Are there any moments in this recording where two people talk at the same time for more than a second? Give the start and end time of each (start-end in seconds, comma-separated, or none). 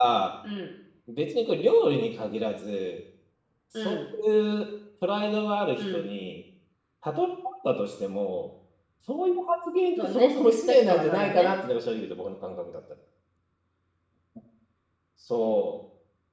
10.0-11.5